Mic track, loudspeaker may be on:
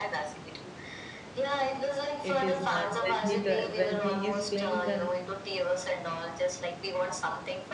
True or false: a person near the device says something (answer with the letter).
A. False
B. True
B